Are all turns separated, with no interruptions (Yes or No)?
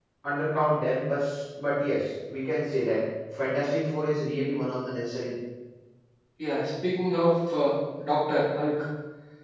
Yes